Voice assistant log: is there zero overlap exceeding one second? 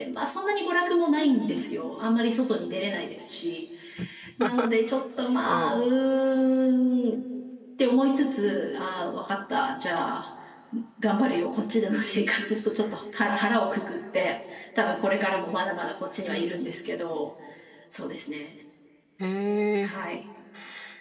Yes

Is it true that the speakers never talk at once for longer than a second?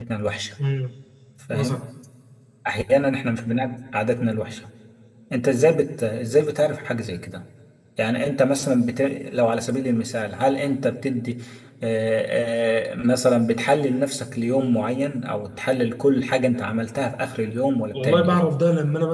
Yes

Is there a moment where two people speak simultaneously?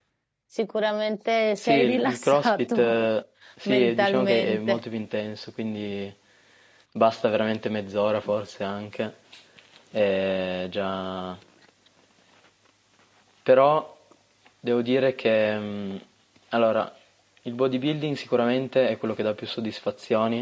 Yes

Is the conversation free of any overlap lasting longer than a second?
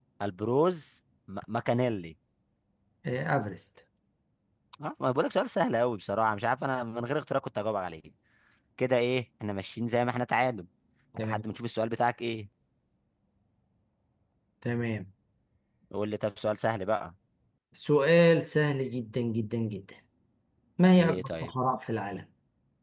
Yes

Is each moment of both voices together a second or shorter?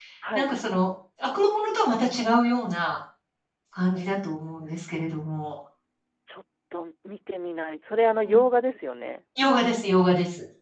Yes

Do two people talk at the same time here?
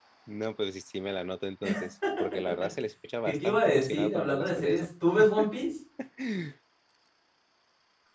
Yes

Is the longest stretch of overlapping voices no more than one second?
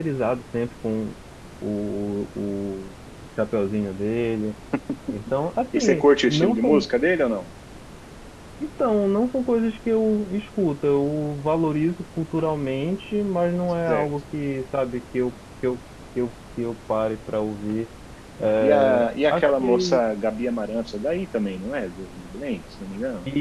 No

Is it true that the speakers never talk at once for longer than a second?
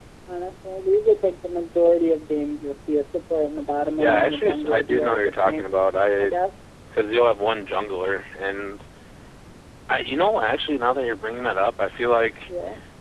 No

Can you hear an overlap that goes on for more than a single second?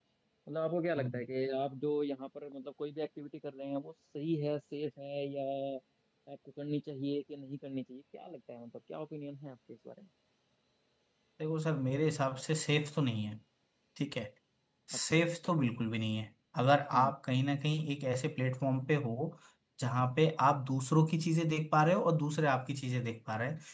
No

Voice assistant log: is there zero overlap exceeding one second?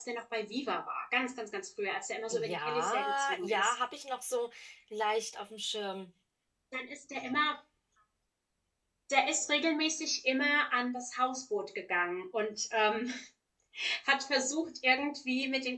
No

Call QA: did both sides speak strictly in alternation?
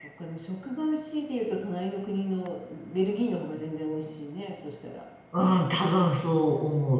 Yes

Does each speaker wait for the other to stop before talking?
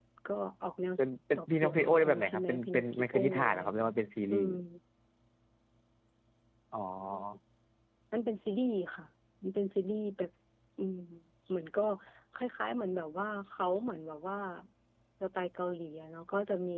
No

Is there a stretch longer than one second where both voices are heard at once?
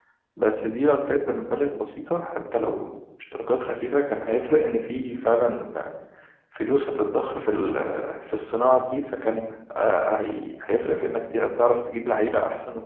No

